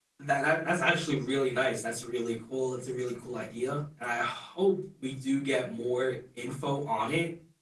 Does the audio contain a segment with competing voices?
No

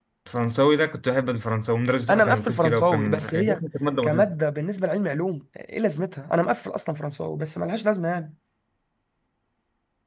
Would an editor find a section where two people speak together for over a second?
Yes, from 2.1 s

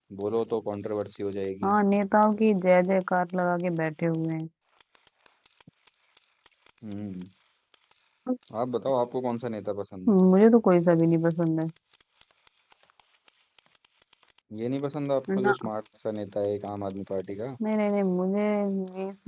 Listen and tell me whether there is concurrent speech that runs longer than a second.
No

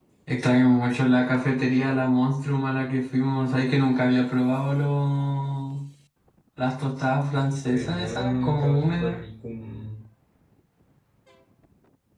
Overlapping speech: Yes, from 7.7 s

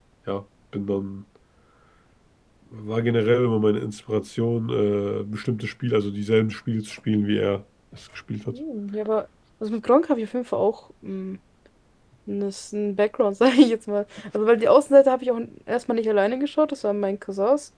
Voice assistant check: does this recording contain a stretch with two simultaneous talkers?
No

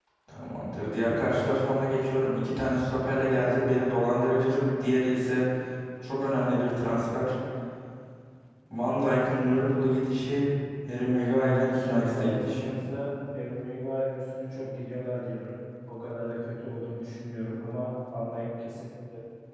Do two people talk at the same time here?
Yes, from 11.2 s

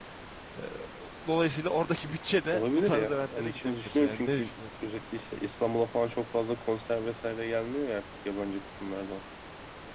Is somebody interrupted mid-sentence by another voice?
Yes, from 2.5 s

